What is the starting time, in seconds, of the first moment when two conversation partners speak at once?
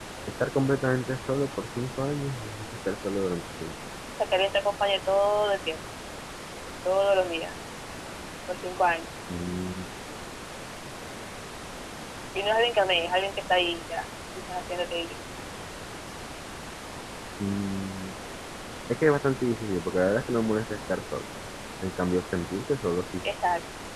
none

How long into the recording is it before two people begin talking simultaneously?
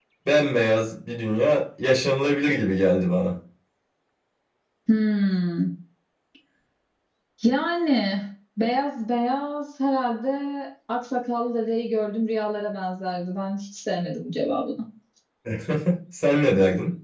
none

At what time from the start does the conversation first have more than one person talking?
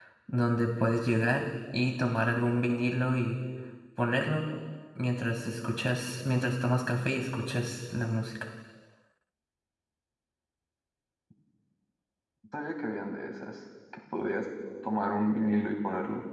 none

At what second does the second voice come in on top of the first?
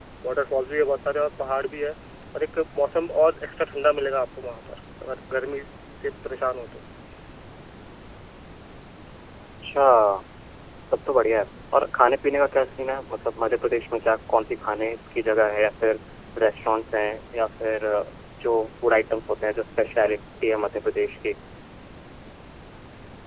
none

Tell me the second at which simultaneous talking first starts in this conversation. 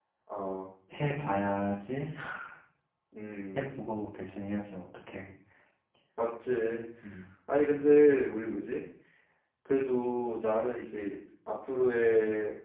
none

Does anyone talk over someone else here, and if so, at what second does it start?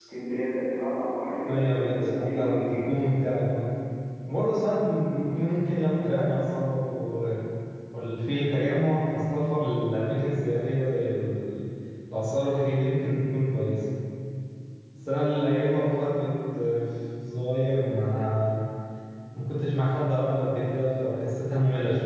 1.4 s

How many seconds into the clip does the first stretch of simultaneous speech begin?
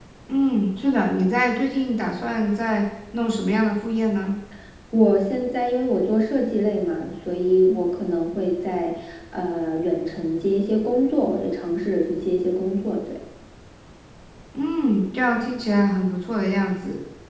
none

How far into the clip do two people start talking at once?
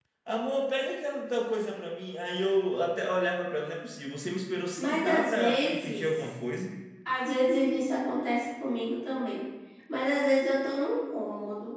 4.8 s

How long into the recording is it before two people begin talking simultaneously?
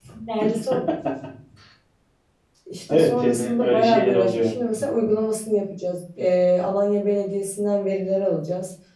2.9 s

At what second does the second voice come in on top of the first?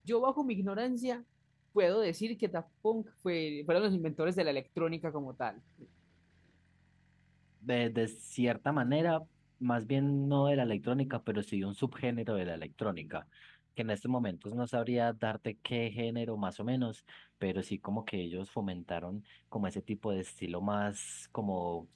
none

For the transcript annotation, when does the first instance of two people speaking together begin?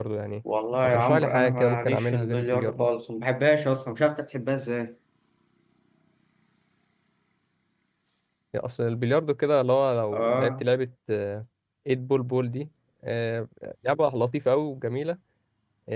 0.8 s

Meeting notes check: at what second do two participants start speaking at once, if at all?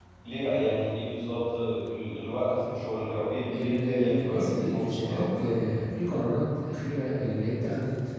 3.5 s

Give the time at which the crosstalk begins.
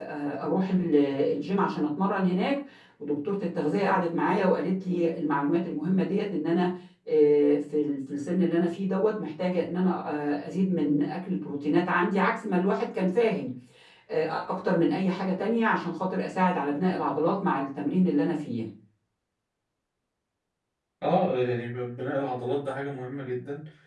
none

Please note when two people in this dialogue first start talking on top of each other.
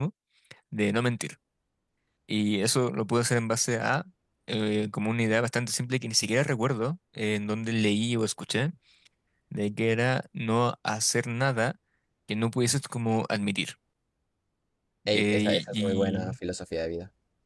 15.1 s

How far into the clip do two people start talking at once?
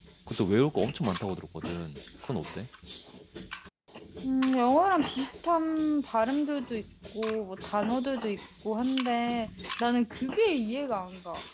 none

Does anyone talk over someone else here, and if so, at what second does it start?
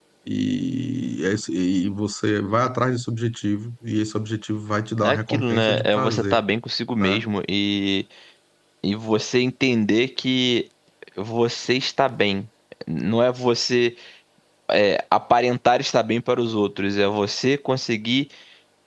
5.0 s

